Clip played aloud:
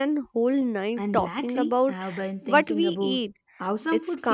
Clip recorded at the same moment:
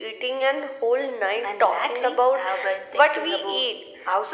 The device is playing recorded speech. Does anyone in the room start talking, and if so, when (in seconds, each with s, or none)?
none